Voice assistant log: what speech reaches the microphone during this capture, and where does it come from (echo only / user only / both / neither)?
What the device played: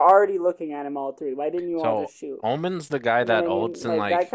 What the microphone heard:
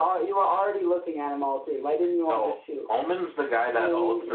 echo only